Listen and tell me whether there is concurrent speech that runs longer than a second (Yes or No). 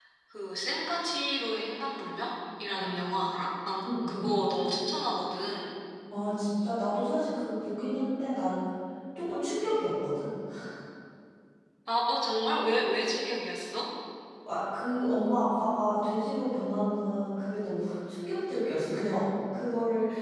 No